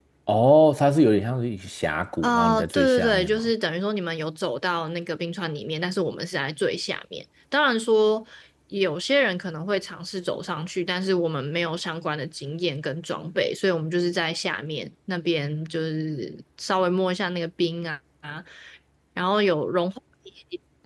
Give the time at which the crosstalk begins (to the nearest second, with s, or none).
2 s